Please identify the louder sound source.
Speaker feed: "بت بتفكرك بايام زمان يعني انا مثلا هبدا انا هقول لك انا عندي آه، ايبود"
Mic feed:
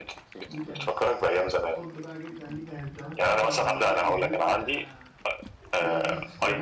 echo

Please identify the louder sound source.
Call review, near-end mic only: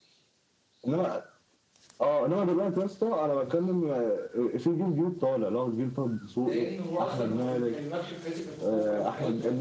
echo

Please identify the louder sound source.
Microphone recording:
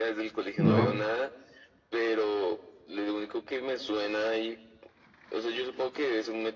user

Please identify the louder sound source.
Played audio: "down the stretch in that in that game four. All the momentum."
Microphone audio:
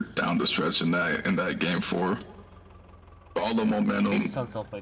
echo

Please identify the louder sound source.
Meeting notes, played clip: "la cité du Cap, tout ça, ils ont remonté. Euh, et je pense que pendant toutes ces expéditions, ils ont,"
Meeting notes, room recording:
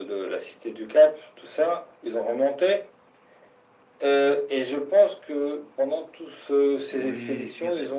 echo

